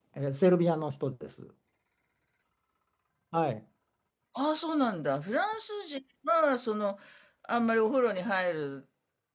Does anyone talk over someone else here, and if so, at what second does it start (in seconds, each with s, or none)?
none